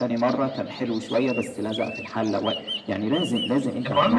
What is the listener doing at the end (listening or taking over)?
taking over